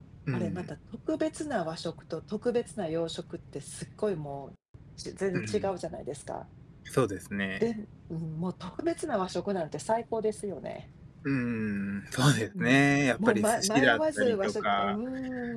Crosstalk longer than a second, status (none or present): present